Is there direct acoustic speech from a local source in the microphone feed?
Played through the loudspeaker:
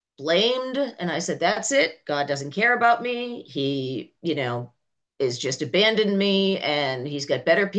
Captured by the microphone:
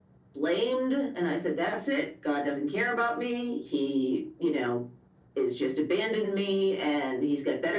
No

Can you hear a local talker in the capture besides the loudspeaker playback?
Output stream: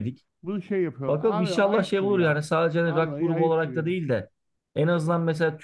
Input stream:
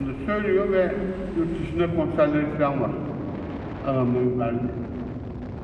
Yes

